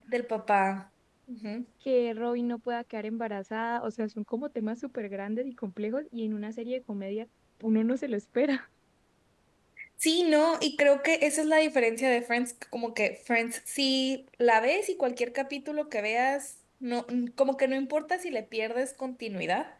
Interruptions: none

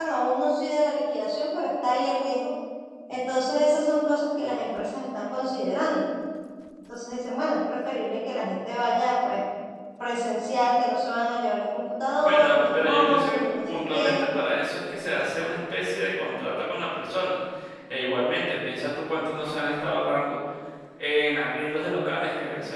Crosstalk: present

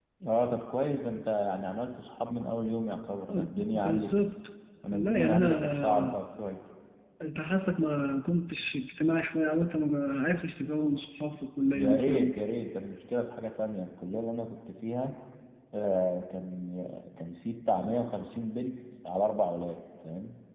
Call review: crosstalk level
present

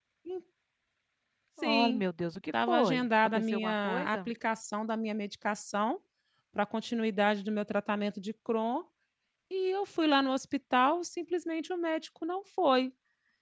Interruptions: present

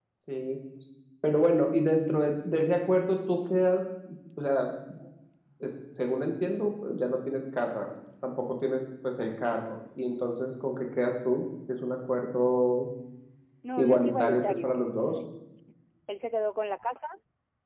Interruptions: present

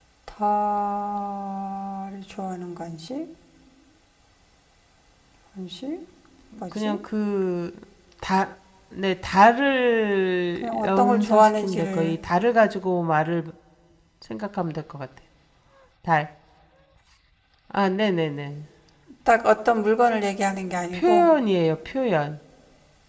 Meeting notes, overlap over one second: present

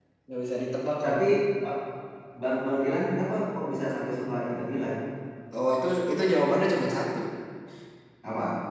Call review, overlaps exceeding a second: none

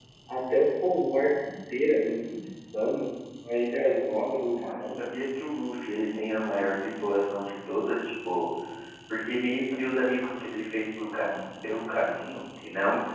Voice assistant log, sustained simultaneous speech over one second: none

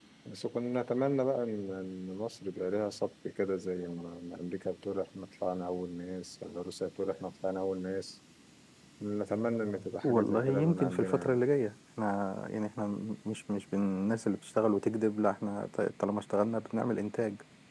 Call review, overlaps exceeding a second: present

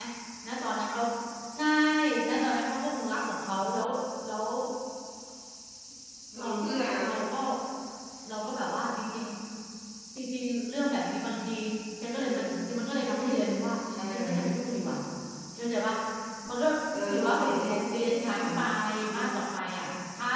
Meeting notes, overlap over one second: present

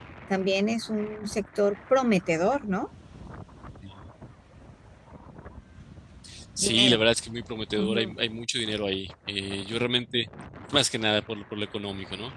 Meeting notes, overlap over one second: none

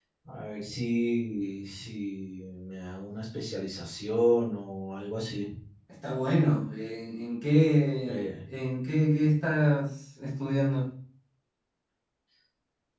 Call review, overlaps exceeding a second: none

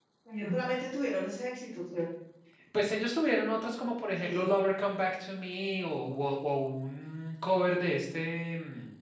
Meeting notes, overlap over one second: none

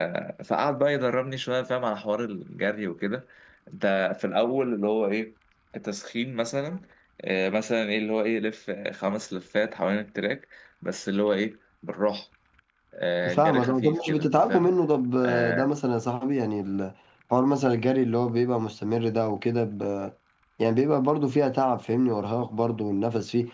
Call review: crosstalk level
present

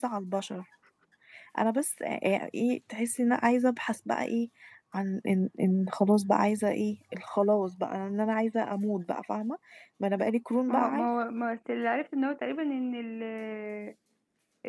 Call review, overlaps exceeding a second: none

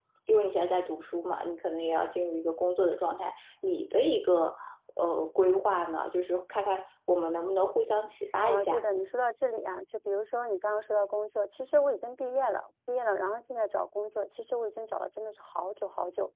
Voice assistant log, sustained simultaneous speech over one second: none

